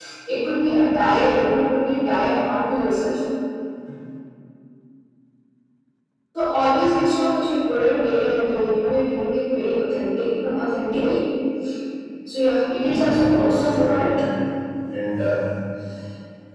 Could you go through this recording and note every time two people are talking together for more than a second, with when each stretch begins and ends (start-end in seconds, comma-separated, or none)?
12.8-14.1